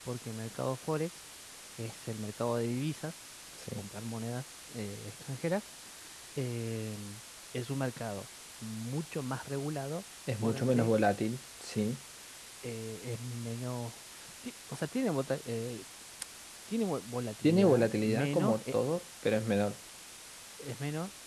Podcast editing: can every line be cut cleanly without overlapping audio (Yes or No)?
No